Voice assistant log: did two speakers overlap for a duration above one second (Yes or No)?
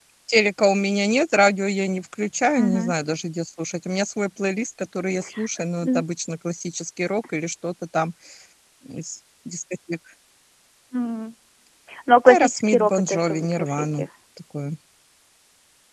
Yes